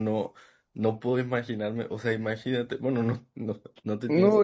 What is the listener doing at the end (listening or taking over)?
taking over